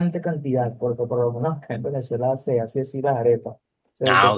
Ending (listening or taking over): listening